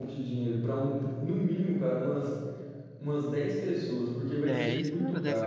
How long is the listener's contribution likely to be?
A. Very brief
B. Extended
B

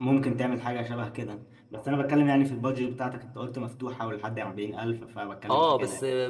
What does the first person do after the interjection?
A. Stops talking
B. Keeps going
A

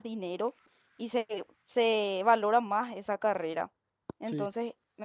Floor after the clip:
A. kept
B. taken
A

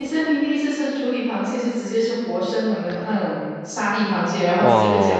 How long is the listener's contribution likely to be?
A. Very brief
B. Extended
B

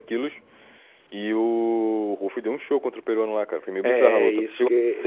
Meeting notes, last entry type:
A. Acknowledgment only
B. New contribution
B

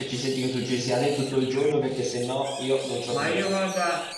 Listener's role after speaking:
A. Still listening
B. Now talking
B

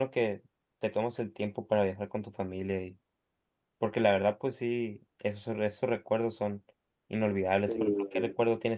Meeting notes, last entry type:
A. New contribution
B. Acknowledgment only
B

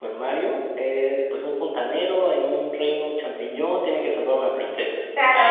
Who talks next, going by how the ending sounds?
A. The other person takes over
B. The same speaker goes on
A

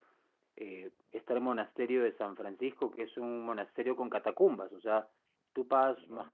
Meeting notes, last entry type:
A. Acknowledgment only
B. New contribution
A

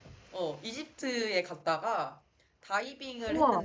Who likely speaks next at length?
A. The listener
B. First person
B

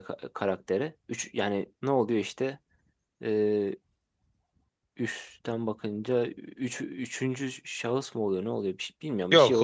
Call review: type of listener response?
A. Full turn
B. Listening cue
A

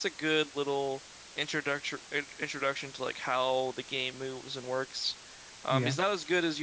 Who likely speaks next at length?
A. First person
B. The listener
A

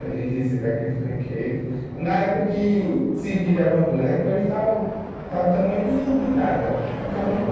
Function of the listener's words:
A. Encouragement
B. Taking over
B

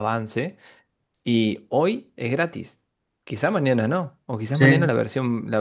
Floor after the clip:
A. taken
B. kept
B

